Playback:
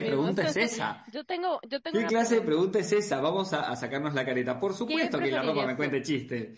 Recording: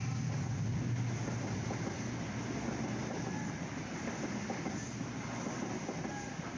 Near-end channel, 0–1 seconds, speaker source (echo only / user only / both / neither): neither